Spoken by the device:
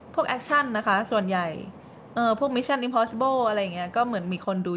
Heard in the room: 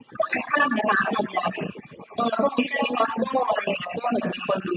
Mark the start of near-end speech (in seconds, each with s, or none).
none